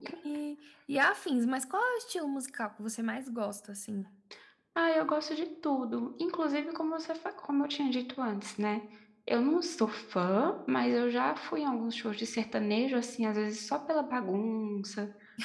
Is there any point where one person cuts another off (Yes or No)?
No